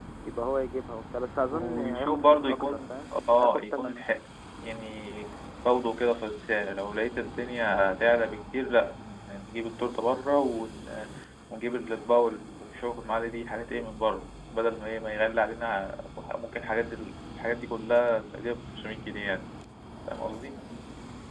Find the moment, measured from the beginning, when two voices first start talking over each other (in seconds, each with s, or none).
1.5 s